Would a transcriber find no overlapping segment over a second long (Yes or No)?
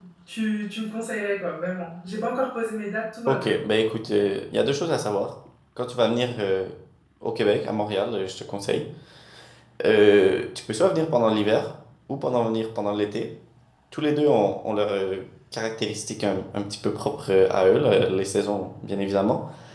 Yes